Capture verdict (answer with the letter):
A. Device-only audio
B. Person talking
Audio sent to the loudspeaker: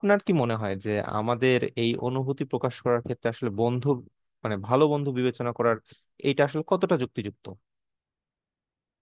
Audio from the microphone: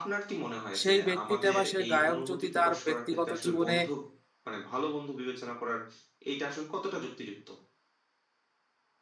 B